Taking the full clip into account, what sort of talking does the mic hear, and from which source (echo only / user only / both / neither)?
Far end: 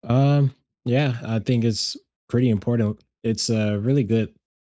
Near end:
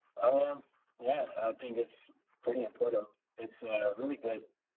echo only